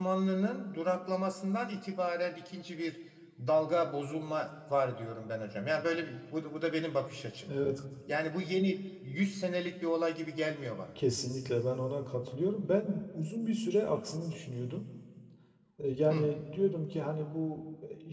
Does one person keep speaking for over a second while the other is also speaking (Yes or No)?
No